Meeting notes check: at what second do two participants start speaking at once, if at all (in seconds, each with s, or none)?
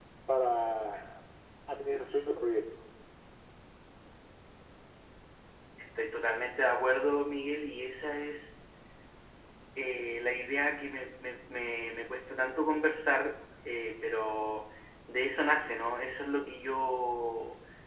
none